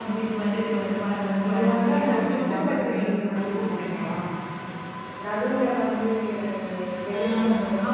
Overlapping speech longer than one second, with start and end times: 1.5-4.1

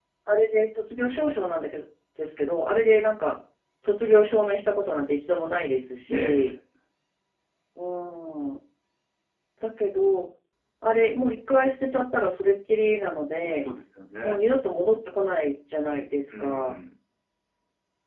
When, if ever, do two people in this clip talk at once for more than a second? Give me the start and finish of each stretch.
none

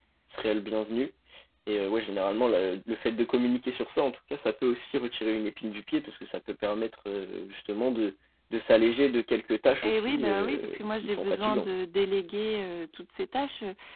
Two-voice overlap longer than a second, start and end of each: 9.8-11.7

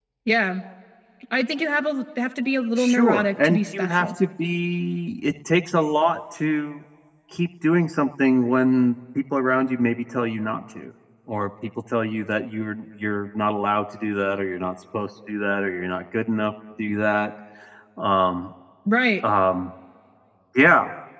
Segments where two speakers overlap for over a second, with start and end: 2.8-4.1

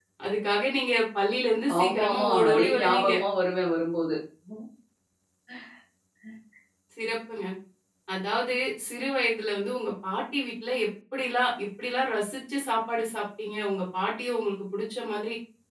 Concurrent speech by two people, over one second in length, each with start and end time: 1.8-3.1

